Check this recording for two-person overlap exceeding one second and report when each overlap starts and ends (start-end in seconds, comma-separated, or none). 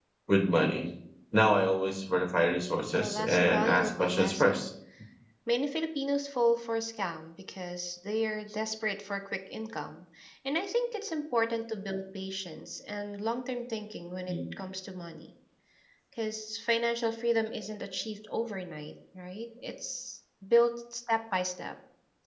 2.9-4.7